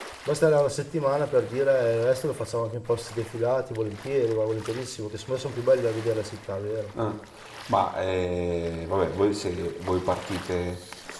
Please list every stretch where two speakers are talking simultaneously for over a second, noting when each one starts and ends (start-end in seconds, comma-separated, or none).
none